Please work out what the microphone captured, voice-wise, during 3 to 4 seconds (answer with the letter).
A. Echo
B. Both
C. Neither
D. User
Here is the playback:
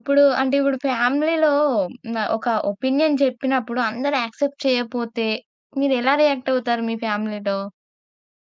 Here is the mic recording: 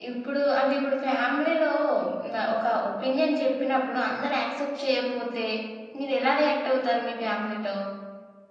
A